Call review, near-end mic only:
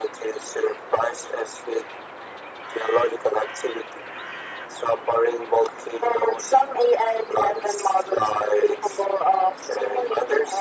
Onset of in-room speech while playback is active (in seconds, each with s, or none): none